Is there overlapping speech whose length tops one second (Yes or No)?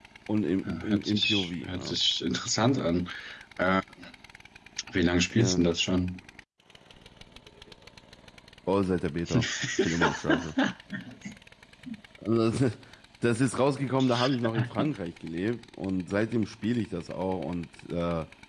Yes